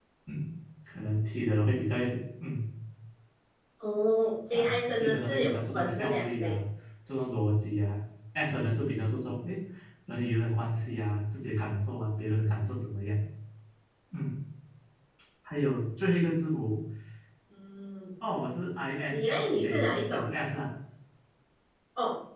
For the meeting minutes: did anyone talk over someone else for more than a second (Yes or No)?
Yes